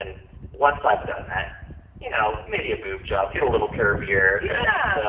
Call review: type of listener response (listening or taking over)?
taking over